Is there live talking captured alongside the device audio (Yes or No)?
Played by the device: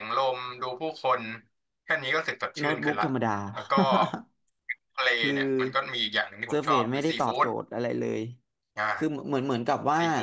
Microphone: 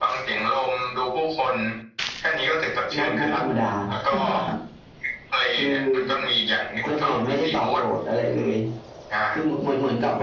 No